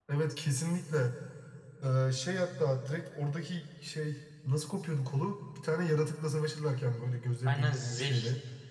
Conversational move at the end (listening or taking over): taking over